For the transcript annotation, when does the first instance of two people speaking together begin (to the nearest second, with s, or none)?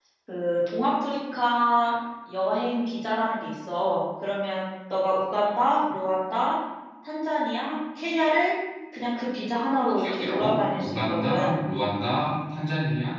10 s